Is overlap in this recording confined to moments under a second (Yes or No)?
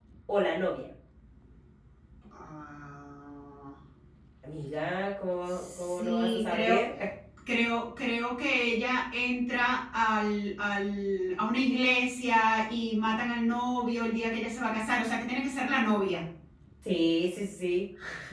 No